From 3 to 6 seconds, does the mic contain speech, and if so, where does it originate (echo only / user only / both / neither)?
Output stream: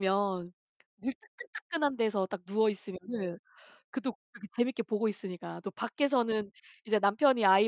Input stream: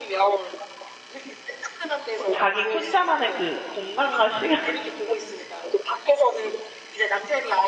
both